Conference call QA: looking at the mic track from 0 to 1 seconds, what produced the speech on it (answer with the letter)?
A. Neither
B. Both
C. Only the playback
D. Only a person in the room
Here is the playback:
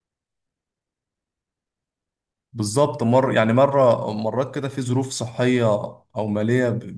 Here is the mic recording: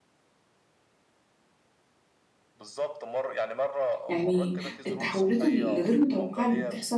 A